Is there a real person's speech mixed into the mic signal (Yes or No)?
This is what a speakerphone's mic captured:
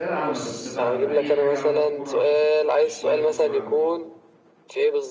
Yes